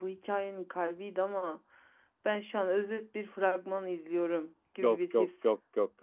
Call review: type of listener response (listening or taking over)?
taking over